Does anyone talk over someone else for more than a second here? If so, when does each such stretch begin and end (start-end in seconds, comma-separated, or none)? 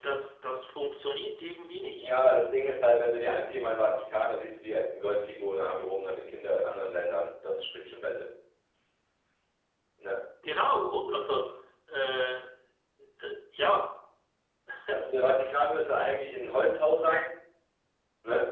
none